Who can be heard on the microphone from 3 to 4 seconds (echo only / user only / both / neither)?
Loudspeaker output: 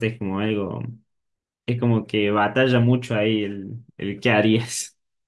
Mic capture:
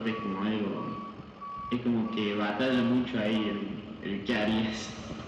echo only